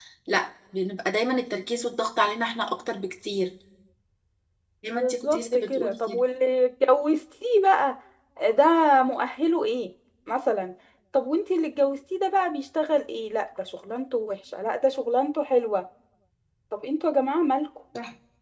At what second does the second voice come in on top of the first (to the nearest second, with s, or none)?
5 s